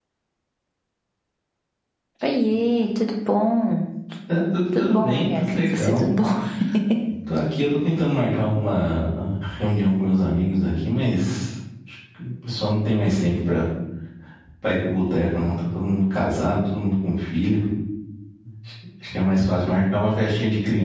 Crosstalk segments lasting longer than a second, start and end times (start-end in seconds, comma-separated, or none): 4.8-6.0